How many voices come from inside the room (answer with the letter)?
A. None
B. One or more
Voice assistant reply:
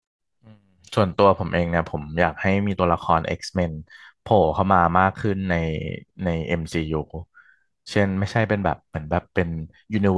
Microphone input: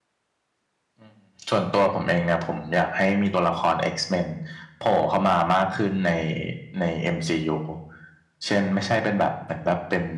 A